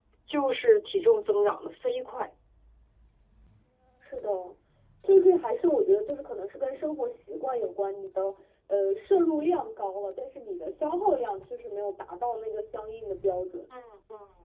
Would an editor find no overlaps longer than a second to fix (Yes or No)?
Yes